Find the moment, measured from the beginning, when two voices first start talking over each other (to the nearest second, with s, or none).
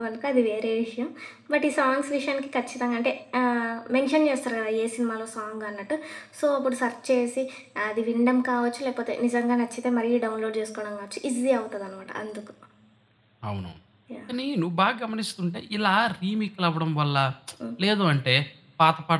none